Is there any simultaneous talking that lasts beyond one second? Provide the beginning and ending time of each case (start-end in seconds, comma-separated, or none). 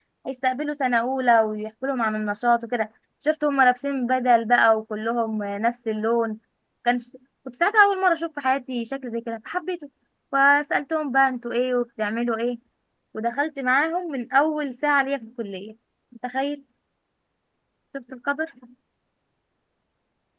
none